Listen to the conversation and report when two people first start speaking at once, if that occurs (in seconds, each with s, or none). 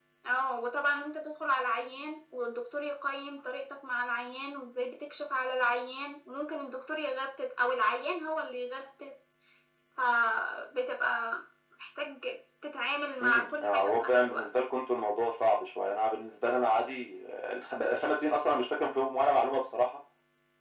13.2 s